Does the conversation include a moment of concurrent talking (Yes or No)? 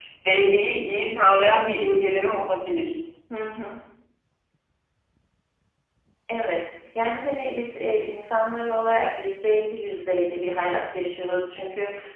No